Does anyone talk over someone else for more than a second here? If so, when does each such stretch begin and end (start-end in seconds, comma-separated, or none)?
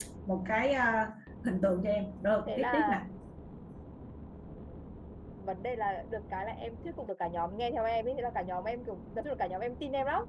none